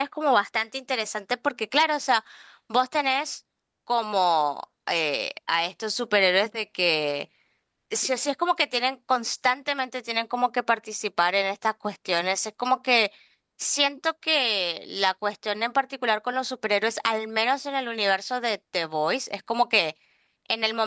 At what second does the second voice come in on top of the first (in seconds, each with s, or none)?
none